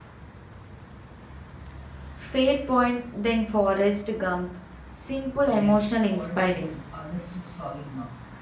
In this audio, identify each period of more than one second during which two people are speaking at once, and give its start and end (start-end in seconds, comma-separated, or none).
5.5-6.7